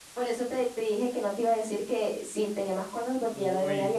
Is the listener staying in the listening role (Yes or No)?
No